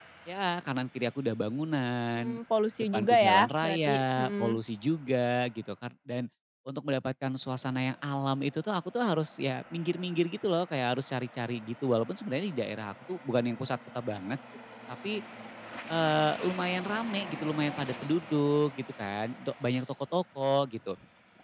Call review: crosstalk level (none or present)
present